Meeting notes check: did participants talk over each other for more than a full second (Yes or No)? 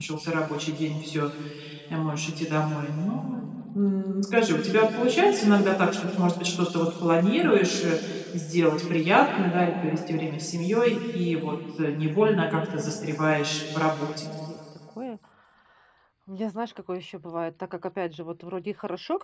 No